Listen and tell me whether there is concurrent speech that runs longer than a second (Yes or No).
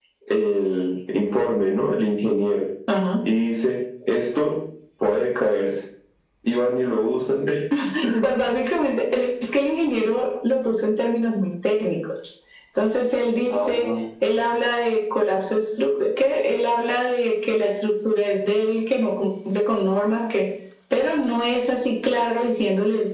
No